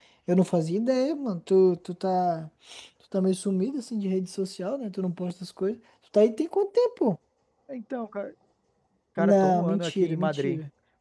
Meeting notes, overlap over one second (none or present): present